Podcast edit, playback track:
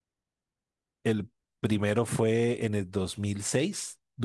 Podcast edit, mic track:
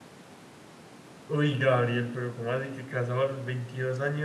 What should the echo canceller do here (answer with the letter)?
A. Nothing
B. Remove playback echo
A